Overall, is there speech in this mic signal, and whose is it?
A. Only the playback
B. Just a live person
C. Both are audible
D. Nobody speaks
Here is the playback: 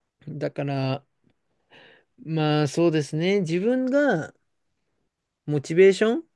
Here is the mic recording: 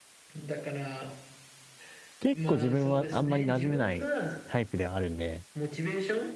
C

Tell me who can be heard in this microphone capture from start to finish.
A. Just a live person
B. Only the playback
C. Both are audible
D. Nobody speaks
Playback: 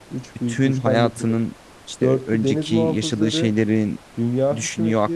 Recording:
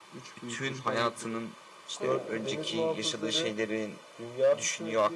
C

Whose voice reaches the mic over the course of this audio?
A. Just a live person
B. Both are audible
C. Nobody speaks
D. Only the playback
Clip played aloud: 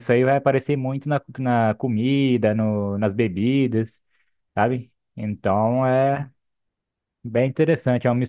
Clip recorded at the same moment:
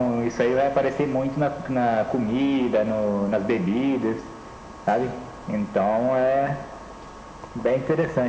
D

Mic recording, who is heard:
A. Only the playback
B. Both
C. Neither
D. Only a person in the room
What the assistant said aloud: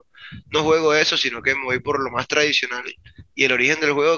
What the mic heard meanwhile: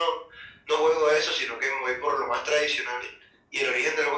A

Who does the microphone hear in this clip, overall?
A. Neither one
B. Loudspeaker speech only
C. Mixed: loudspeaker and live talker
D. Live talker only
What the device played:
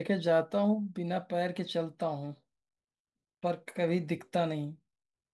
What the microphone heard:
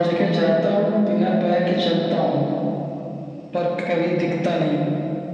B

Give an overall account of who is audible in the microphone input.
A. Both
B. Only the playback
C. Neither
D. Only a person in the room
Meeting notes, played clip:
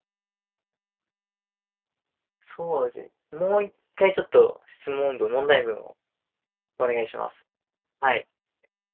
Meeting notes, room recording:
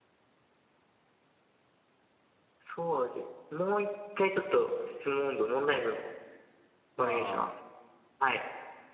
A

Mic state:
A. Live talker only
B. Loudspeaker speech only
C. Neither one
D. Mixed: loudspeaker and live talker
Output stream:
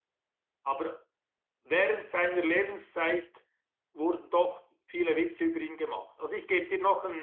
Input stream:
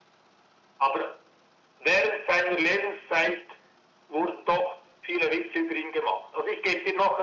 B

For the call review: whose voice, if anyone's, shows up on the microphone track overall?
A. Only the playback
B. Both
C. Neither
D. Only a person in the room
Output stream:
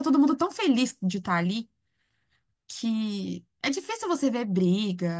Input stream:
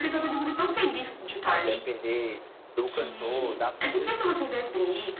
B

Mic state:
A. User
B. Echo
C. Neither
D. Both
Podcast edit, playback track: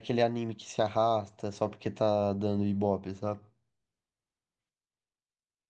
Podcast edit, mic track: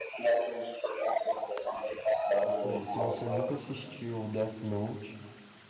D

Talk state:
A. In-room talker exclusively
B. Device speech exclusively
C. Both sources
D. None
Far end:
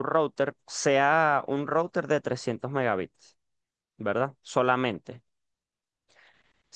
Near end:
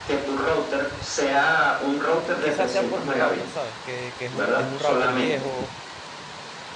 C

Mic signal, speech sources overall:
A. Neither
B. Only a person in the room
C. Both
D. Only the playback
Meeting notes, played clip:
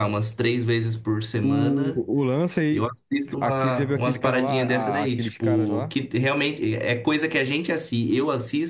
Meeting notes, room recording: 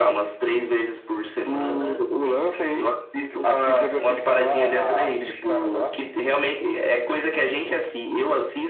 C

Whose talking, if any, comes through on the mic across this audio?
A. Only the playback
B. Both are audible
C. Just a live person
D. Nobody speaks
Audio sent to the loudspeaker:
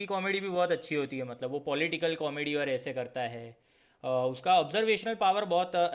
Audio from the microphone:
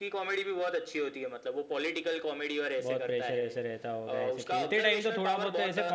B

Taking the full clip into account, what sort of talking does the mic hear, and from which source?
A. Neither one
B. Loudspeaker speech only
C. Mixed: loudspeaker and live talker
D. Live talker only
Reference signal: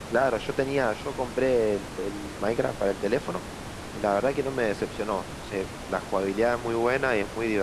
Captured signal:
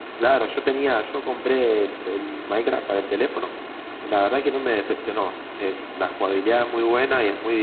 B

